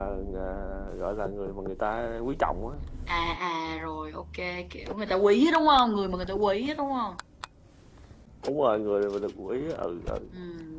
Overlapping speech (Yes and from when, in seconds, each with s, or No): No